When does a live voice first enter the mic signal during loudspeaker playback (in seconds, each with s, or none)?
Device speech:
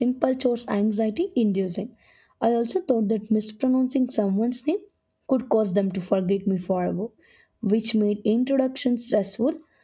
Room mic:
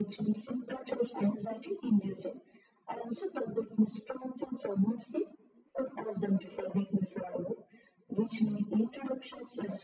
none